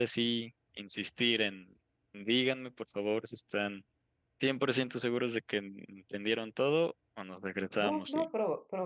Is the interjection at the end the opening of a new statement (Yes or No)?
Yes